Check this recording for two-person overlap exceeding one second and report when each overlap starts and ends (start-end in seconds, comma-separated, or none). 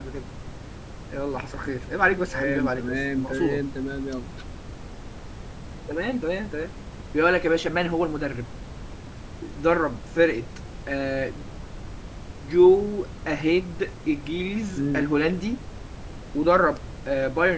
2.3-3.6